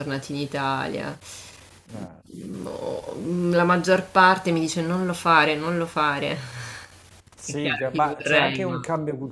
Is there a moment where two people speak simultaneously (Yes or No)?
Yes